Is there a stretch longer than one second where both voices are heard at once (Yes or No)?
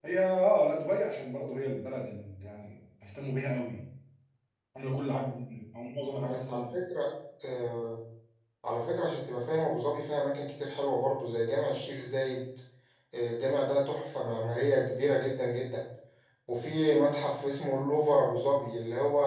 No